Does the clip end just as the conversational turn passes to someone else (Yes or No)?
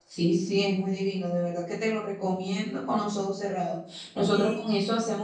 No